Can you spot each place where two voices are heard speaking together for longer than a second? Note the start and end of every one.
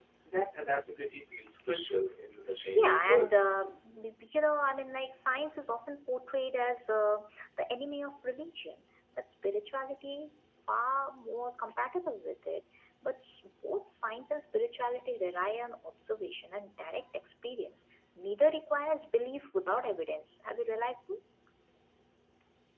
none

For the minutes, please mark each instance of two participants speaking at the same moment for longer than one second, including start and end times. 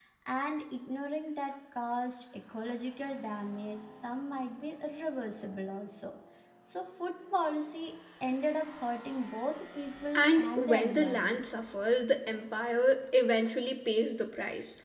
10.2-11.4

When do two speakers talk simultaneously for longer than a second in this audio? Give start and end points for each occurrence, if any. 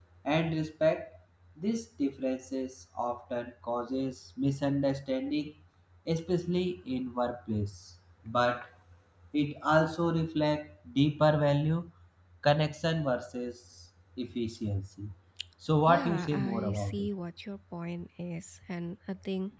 15.9-17.1

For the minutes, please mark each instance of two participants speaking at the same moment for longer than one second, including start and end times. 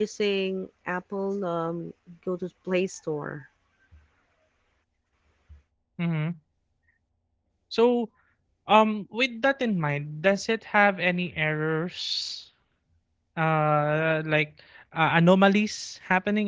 none

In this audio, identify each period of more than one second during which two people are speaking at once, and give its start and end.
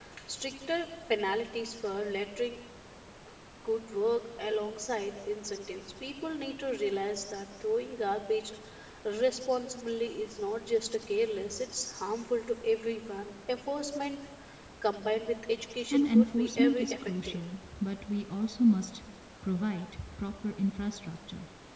15.9-17.4

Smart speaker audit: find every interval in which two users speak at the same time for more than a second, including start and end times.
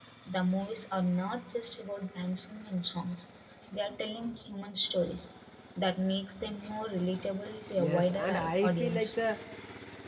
7.8-9.2

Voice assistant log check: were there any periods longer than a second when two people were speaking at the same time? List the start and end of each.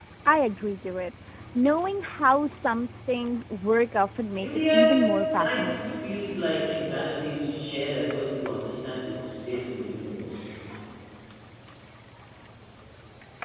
4.4-5.9

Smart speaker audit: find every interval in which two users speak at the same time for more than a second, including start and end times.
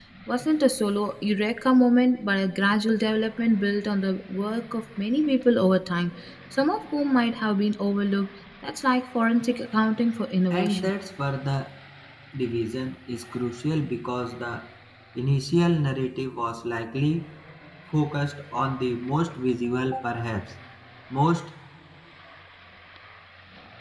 none

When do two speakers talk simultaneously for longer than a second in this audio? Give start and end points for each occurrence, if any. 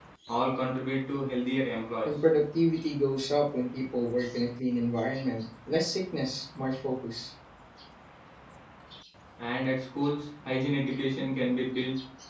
none

